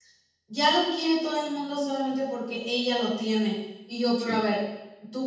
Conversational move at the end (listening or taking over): listening